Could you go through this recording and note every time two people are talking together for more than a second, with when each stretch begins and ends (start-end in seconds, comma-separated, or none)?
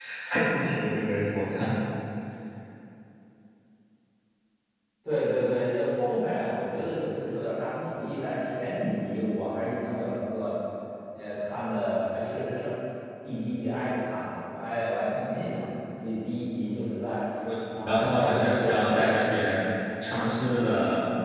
17.8-19.2